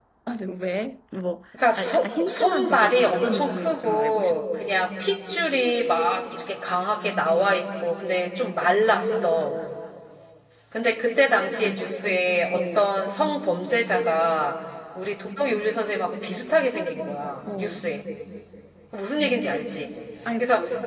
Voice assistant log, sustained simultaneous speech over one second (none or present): present